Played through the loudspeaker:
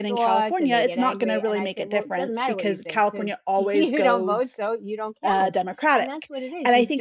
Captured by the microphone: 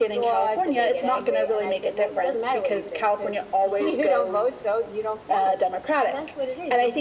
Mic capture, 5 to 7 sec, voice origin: echo only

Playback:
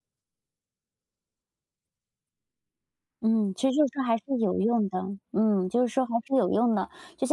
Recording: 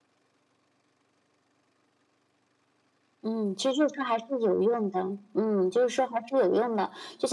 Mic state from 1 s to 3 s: neither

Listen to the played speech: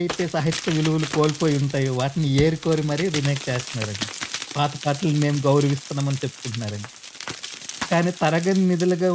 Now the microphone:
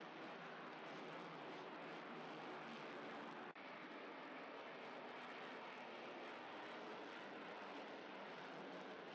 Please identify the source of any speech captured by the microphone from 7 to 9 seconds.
neither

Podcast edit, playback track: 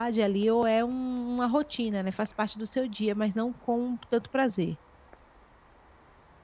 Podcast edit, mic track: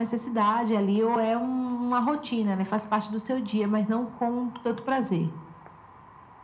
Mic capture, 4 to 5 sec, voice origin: echo only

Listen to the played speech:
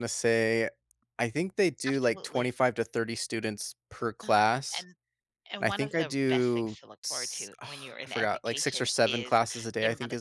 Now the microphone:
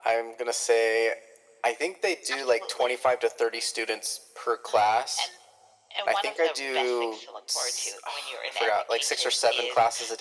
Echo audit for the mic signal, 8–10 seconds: echo only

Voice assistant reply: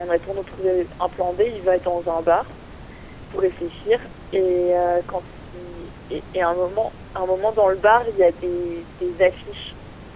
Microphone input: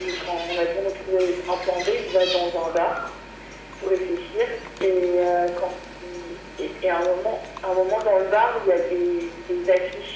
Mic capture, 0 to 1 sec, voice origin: echo only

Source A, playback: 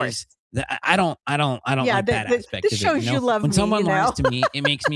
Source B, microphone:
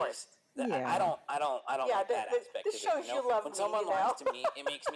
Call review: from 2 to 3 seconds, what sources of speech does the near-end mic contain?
echo only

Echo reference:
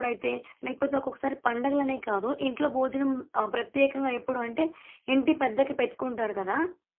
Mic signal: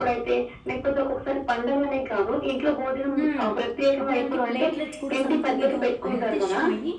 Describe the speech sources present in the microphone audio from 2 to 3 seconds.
echo only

